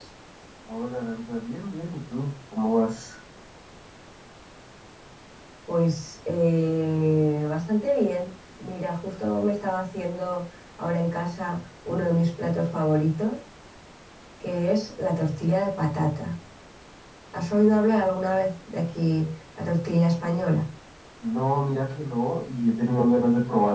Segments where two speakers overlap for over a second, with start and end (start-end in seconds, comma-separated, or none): none